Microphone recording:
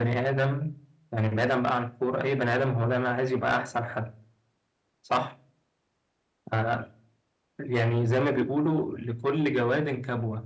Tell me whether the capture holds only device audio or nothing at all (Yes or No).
Yes